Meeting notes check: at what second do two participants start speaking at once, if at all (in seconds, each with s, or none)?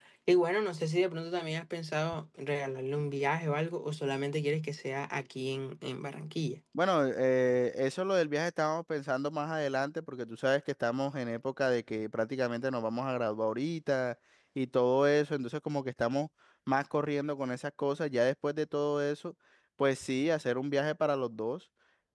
none